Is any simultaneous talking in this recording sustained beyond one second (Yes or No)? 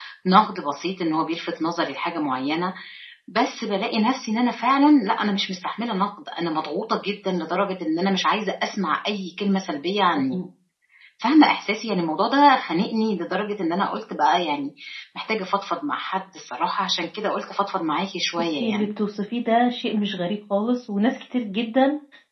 No